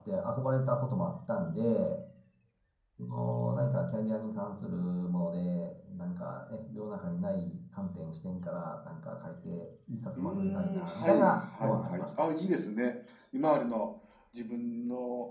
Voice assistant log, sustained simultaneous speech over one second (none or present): present